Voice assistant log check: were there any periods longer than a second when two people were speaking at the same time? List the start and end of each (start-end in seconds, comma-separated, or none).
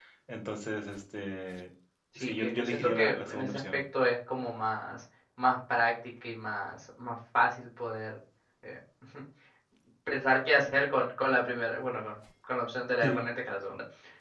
2.2-3.8